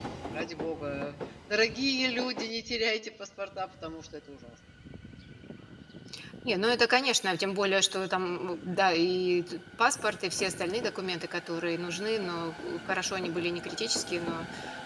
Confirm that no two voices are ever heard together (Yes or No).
Yes